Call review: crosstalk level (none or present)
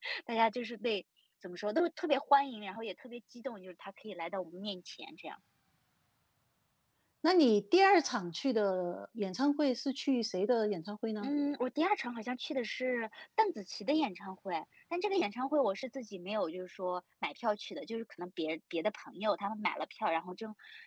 none